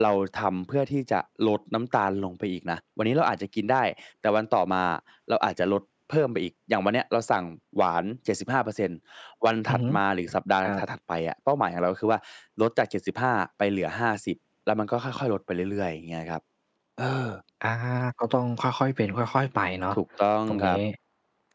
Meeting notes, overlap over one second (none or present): none